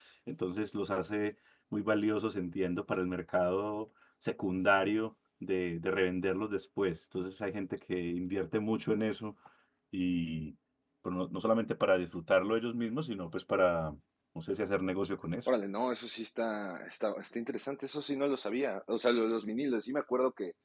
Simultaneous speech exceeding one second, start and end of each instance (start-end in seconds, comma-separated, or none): none